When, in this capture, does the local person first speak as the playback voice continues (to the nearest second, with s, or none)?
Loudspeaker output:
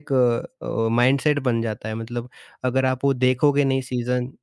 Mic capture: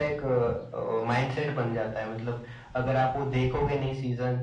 none